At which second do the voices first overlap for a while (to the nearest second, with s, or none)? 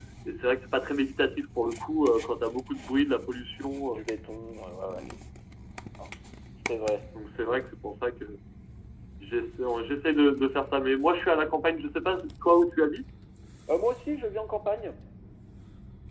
none